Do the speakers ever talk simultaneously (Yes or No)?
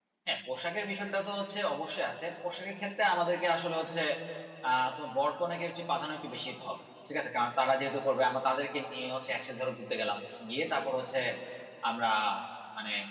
No